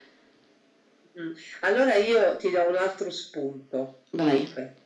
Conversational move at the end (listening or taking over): listening